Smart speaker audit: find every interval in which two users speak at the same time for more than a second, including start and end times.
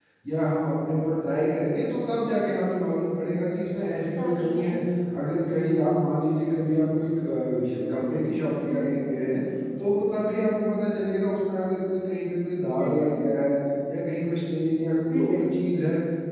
none

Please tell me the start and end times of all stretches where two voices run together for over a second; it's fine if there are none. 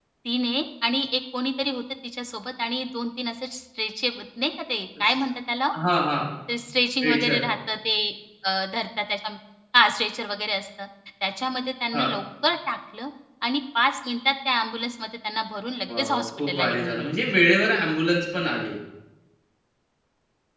15.9-17.2

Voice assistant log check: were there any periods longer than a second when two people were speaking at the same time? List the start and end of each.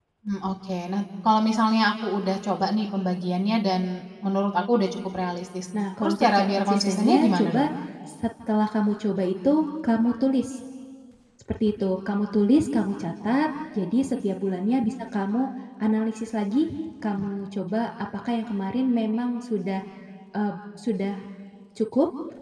6.0-7.7

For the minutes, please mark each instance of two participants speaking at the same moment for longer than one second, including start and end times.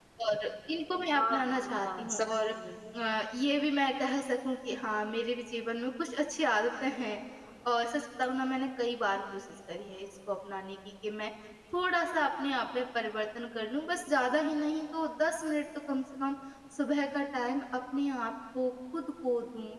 1.2-2.5

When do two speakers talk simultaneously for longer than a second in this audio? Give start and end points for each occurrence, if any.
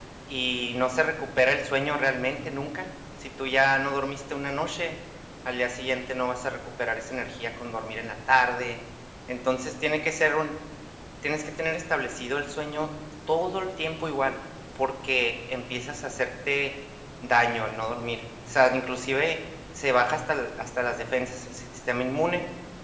none

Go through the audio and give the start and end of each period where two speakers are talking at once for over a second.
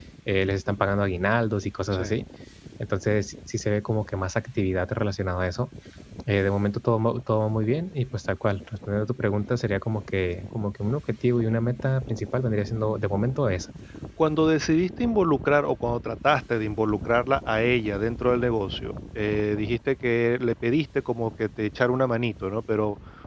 none

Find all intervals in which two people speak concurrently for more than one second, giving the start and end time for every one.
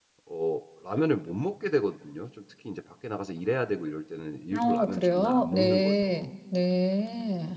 4.5-6.3

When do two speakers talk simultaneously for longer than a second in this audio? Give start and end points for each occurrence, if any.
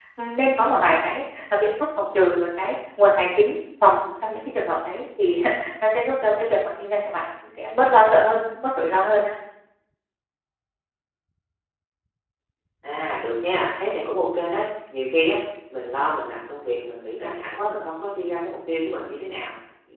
none

